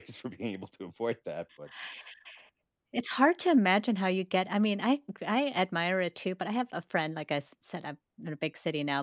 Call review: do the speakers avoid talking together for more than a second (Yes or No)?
Yes